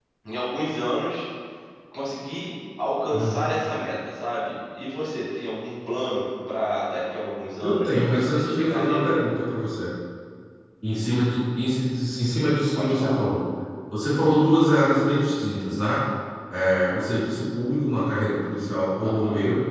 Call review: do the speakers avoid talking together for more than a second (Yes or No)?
No